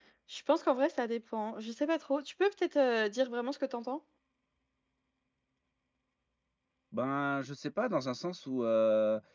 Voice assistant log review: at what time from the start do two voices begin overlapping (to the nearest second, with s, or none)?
none